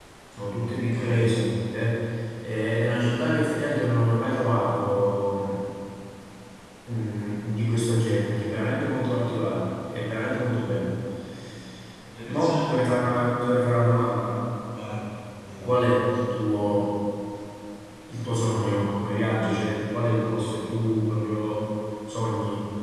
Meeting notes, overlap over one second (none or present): none